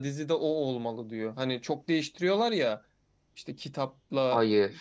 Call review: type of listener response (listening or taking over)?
listening